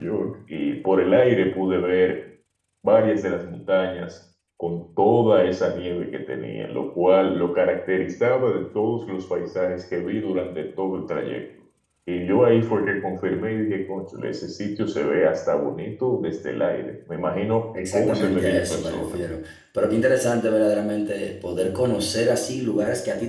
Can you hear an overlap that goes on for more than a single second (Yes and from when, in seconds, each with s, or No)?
Yes, from 17.7 s